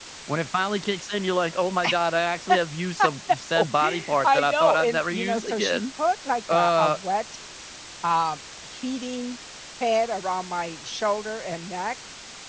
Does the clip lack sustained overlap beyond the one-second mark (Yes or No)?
No